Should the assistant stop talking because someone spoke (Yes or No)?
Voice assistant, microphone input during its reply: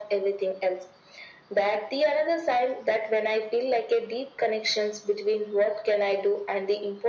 No